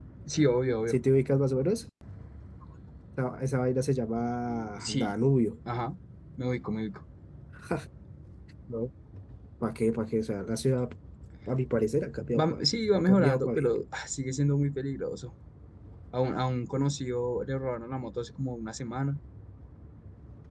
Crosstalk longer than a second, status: present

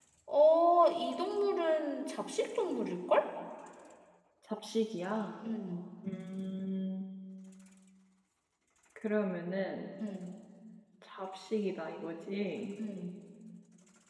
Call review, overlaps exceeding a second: none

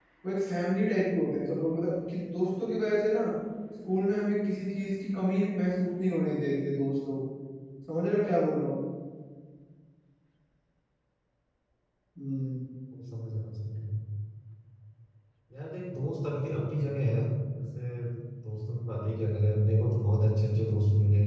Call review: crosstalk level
none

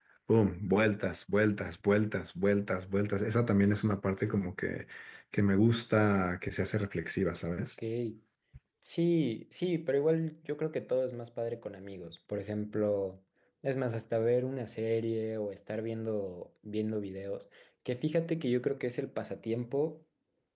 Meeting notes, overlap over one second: none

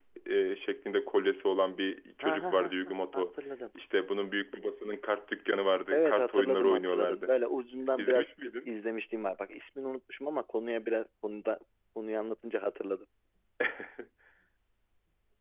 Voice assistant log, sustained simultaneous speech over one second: present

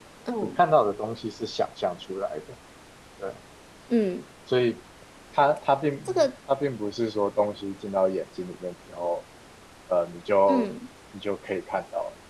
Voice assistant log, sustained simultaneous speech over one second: none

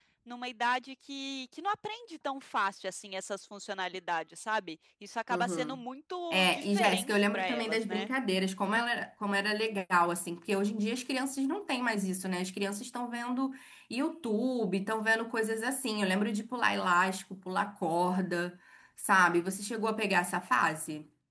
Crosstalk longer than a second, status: present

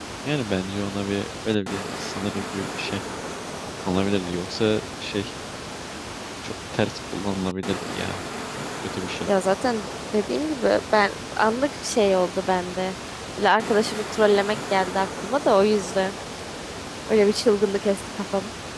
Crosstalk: none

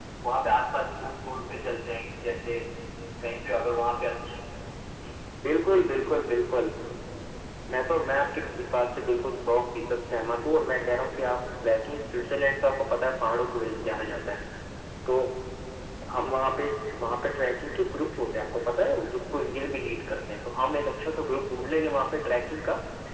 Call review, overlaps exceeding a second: none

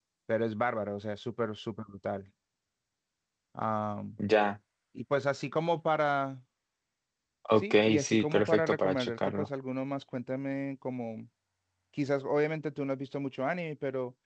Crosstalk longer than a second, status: present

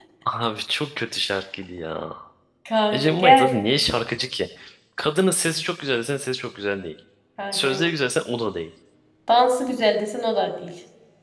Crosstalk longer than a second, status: none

